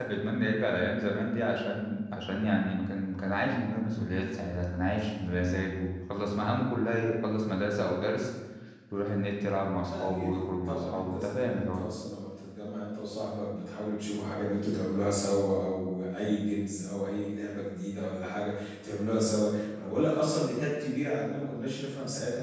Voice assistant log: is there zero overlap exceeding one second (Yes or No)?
No